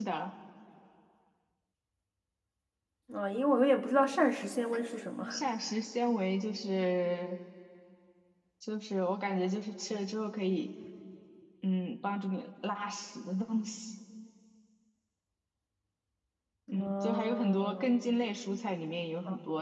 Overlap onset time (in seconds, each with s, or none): 16.7 s